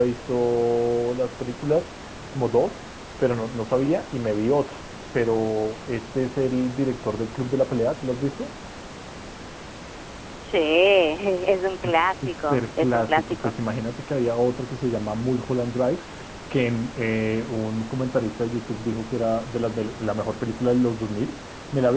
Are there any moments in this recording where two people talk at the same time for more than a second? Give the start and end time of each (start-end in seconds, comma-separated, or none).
12.2-13.5